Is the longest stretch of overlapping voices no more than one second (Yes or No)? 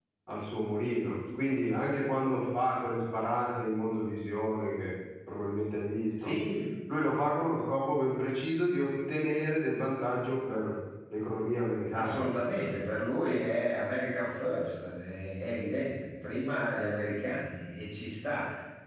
Yes